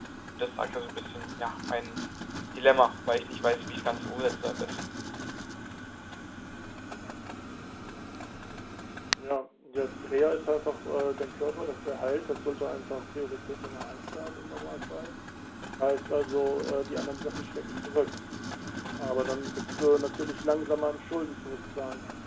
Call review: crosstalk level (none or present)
none